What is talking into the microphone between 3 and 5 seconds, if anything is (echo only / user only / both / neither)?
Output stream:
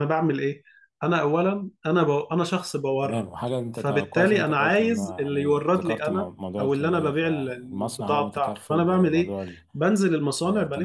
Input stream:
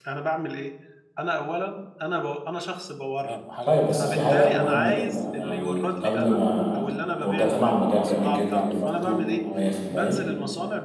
both